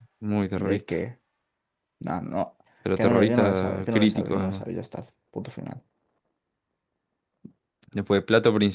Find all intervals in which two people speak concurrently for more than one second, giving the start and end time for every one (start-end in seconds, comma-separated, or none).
3.0-4.6